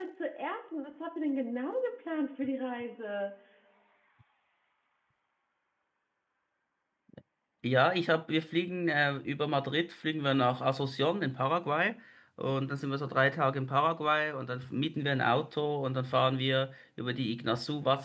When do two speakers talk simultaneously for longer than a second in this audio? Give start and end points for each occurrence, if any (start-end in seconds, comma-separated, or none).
none